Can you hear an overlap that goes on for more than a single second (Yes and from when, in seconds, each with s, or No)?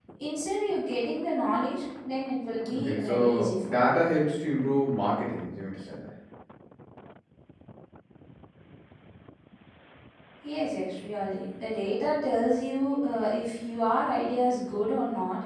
Yes, from 2.6 s